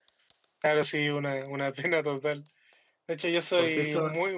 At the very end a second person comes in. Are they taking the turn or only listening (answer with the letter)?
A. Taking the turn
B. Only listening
B